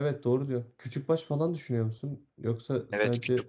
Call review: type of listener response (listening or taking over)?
taking over